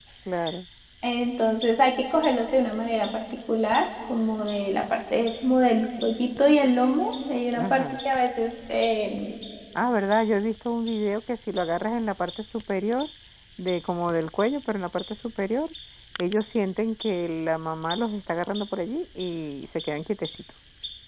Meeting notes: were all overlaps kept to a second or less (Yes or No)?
Yes